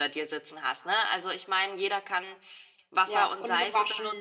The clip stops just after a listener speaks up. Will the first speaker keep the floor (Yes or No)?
No